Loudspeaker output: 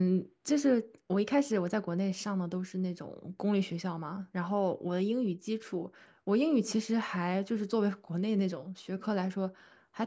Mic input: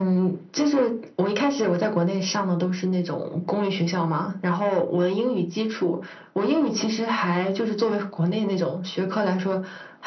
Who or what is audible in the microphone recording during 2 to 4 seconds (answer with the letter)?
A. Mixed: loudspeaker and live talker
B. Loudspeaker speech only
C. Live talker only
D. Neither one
B